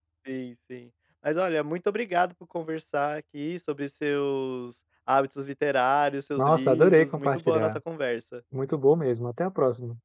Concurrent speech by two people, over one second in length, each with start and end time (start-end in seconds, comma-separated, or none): 6.4-7.8